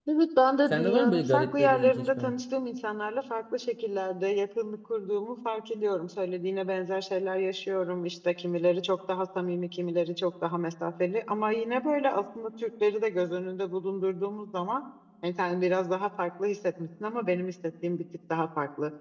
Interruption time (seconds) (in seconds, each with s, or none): 0.7 s